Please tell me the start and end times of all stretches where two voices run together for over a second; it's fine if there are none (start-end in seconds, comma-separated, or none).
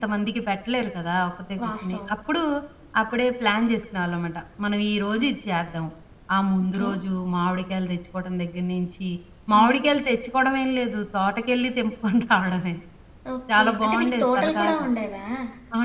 13.5-14.9